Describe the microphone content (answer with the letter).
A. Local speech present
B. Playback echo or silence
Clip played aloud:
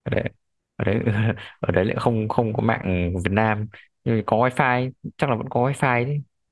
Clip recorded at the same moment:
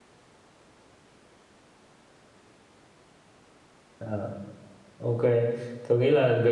A